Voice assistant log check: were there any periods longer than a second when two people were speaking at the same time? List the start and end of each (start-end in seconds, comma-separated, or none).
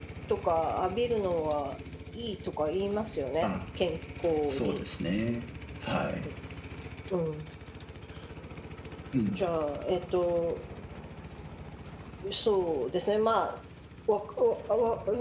none